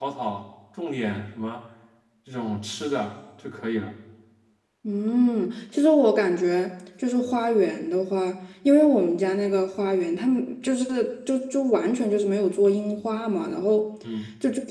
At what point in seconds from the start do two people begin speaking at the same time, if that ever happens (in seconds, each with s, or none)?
none